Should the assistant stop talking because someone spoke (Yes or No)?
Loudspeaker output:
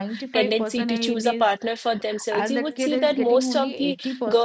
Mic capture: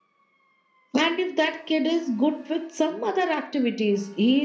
Yes